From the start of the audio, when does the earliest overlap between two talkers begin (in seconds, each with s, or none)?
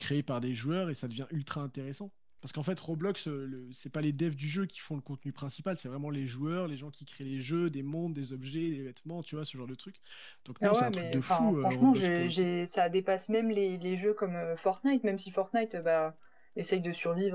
10.6 s